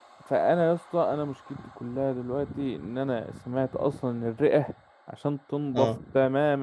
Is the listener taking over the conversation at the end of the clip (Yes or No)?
No